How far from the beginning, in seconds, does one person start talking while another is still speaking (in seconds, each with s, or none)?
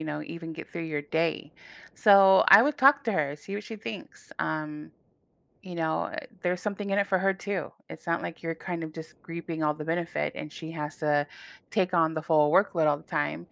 none